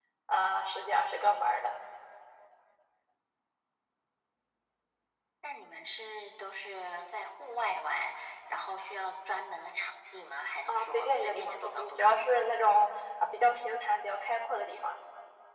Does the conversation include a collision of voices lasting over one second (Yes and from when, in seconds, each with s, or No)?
Yes, from 10.7 s